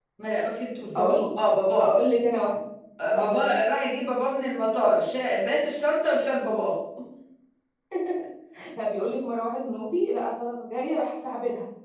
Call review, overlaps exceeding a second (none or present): none